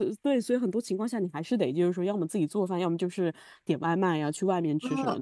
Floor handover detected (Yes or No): No